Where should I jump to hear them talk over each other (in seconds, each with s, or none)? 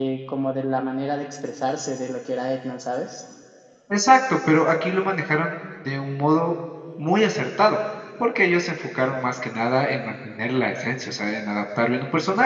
none